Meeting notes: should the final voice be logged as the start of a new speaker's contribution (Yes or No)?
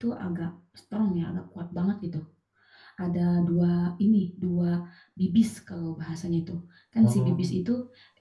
No